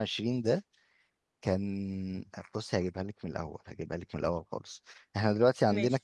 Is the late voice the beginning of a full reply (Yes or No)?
No